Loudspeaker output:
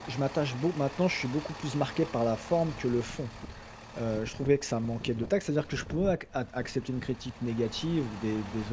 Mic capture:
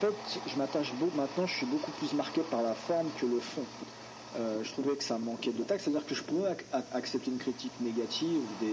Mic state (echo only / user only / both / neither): echo only